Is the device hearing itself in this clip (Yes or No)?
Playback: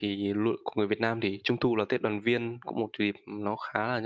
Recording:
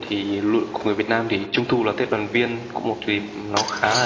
Yes